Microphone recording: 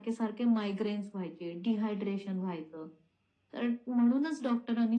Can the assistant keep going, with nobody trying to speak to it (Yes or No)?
Yes